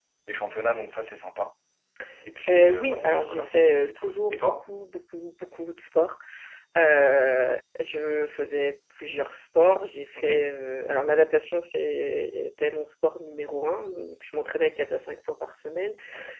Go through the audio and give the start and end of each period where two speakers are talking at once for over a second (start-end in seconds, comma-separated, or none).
2.5-4.6